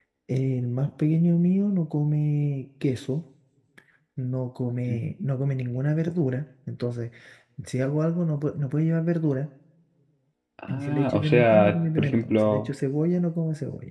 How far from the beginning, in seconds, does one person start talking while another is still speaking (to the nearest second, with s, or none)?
11 s